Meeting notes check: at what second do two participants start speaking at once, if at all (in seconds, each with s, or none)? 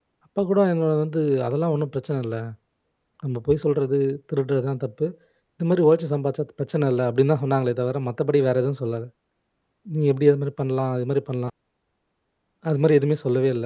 none